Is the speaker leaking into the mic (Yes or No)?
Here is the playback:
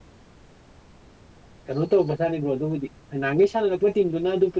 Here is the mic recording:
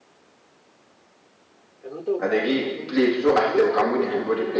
Yes